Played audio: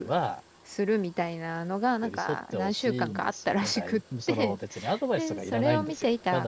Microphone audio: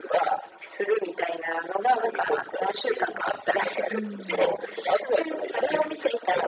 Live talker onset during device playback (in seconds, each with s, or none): 3.9 s